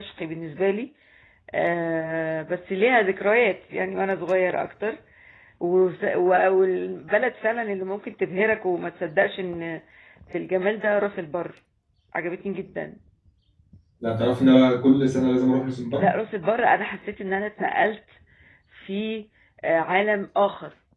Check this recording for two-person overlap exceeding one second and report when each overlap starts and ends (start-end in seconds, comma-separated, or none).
none